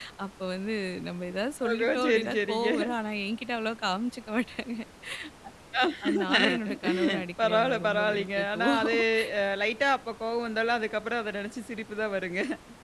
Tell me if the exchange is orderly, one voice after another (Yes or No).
No